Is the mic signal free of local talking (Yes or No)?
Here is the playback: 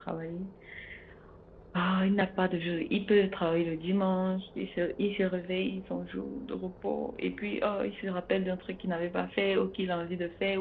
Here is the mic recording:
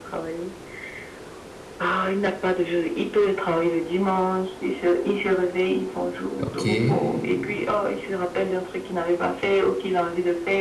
No